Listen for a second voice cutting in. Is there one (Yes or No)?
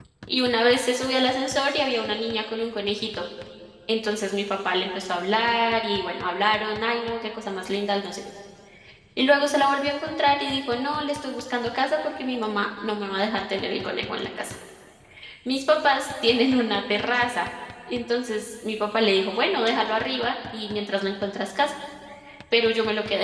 No